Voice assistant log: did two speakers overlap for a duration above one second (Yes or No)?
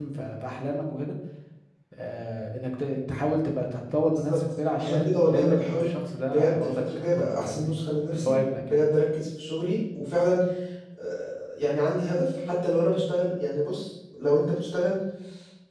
Yes